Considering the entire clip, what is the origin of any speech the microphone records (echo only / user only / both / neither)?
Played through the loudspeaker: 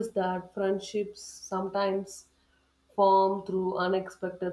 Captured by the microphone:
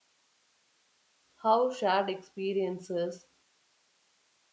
user only